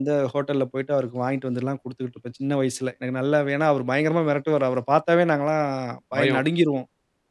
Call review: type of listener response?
listening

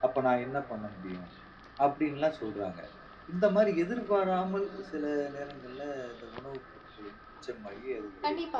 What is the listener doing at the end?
taking over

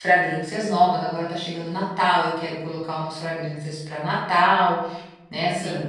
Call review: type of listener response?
listening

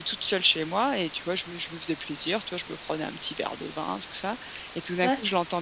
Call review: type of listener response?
listening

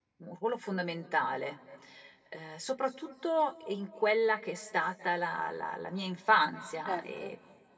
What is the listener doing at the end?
listening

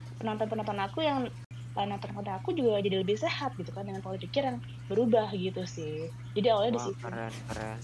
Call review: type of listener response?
taking over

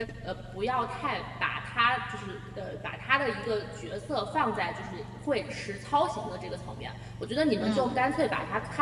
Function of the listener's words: listening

